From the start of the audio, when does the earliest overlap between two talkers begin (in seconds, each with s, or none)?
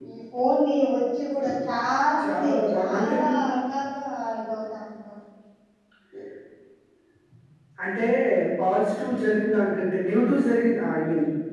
2.2 s